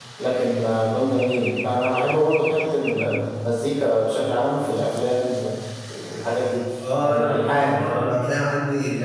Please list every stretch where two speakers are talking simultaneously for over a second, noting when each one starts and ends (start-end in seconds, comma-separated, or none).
7.0-8.2